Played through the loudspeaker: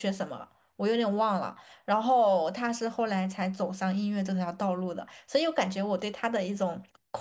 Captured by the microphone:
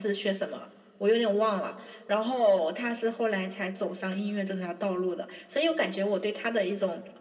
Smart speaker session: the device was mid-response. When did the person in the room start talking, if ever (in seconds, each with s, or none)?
none